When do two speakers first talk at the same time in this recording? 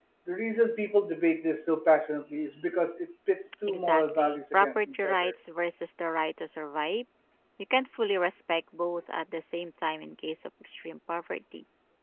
3 s

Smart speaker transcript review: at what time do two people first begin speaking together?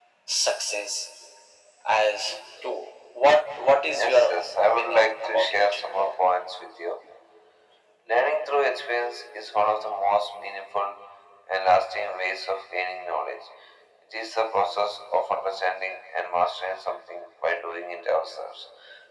4 s

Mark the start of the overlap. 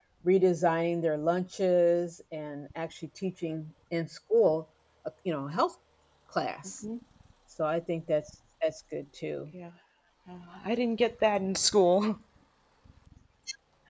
none

